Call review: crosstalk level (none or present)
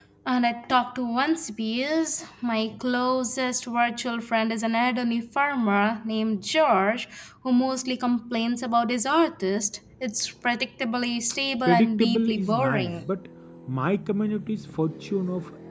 present